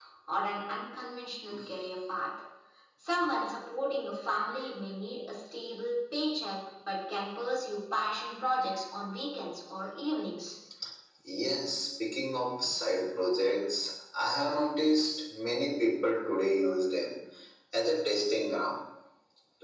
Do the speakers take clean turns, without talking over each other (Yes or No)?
Yes